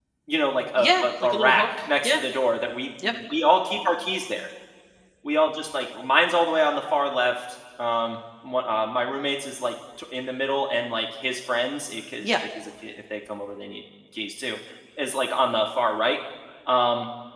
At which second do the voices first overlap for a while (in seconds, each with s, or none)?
0.8 s